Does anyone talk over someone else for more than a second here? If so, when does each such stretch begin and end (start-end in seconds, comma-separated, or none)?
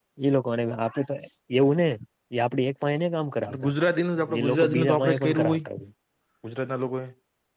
4.4-5.6